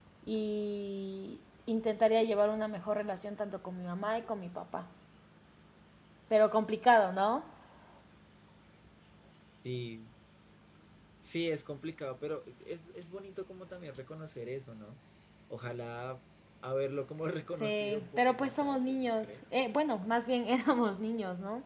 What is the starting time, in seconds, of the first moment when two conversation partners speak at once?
18 s

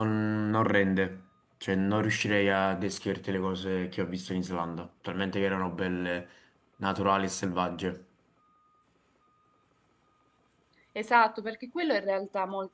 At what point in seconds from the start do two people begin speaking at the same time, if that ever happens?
none

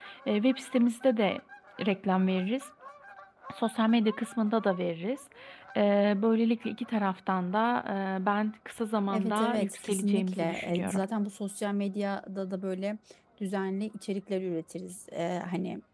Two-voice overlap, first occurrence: 9 s

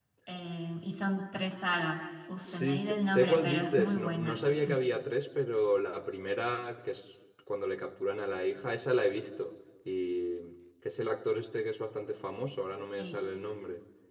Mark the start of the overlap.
2 s

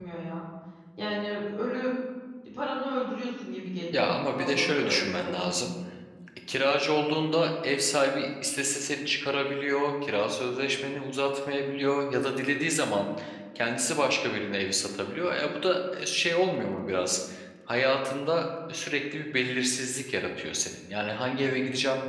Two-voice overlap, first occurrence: 4 s

